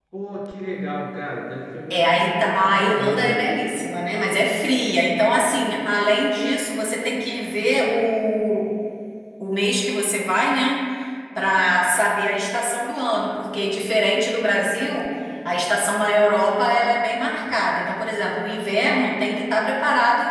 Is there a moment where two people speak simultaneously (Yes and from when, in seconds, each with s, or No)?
Yes, from 1.9 s